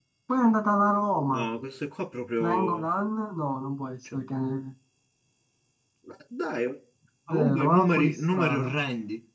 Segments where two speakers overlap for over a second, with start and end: 7.3-8.7

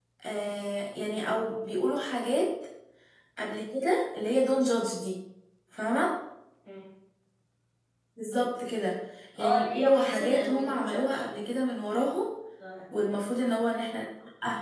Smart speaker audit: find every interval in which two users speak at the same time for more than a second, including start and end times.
9.4-11.2

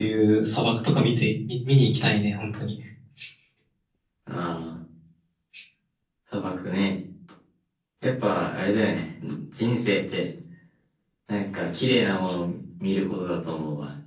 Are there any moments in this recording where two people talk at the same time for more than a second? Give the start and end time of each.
none

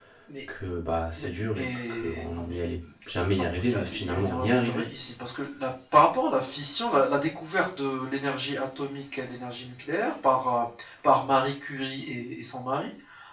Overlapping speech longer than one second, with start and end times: 1.2-2.6, 3.3-4.9

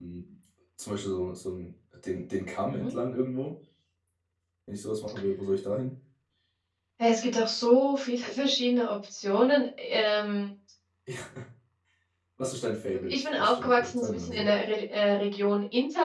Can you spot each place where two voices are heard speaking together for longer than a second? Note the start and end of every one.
13.1-14.5

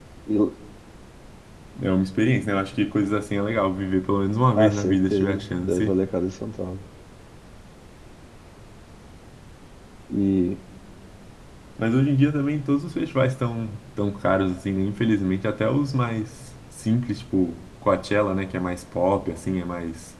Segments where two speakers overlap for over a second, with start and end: 4.6-6.0

